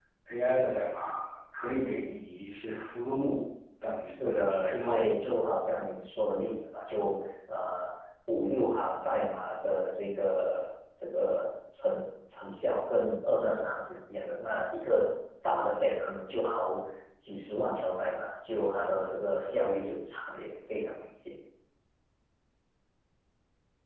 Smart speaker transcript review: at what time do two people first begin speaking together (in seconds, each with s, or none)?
4.0 s